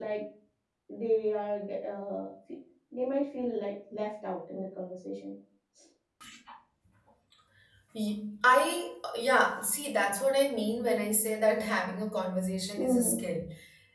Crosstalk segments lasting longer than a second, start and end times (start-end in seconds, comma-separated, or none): none